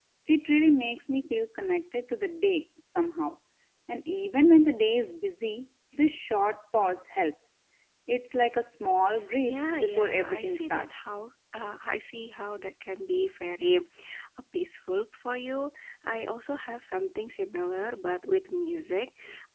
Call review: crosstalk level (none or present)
present